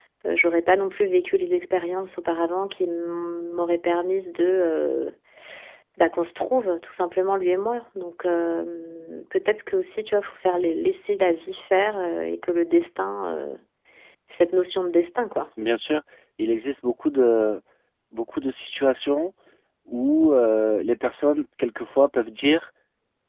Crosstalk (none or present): none